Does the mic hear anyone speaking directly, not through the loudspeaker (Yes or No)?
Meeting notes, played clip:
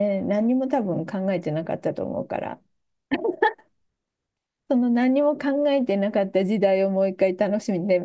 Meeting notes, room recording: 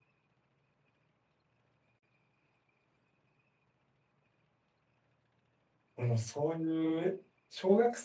Yes